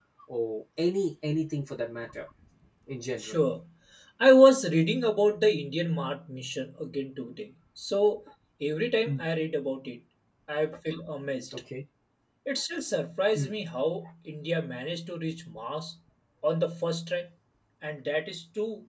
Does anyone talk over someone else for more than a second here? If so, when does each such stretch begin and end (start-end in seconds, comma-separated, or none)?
none